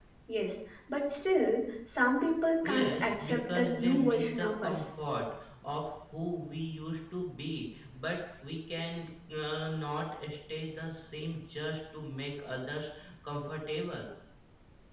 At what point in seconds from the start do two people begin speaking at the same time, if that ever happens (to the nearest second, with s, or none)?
3 s